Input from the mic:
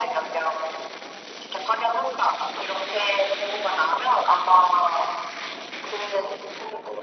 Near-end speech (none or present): none